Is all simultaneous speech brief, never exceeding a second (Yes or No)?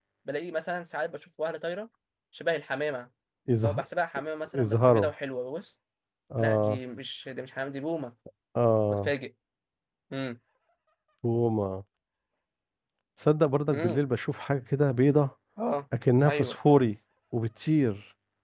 Yes